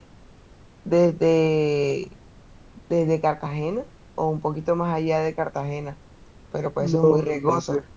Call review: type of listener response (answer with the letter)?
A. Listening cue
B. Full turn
B